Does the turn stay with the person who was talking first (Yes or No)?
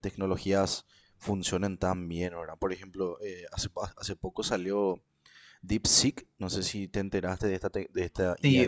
No